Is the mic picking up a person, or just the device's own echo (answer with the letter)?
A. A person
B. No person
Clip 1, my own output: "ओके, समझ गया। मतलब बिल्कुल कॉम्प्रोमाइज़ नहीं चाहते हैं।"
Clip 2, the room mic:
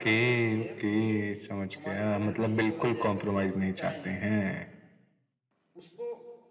A